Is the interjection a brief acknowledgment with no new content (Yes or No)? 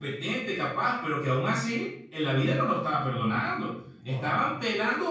Yes